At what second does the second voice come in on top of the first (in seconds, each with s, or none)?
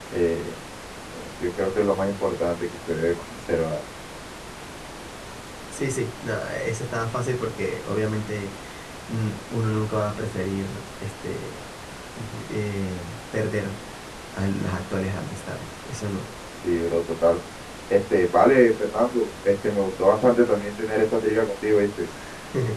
none